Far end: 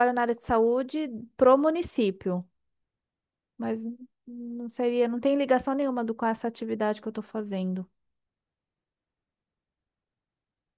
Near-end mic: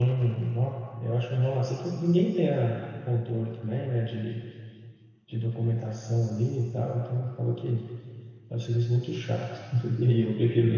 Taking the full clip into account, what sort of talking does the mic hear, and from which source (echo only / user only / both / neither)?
user only